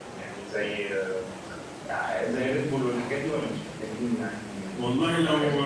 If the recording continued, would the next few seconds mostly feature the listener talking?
Yes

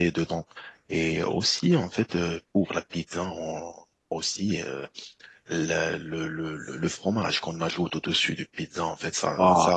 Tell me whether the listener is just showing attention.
Yes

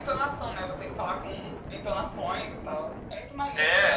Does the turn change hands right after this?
Yes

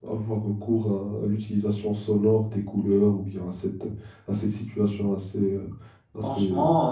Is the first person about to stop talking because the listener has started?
Yes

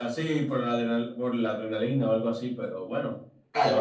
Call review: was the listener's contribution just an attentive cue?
No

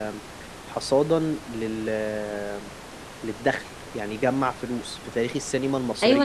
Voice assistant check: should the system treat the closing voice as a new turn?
Yes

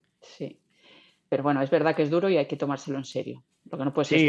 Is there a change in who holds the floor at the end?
Yes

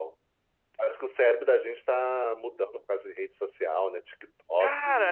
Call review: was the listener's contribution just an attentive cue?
No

